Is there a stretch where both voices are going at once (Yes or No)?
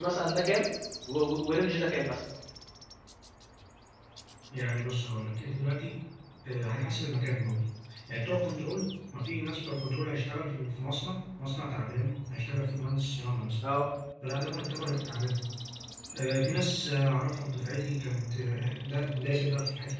No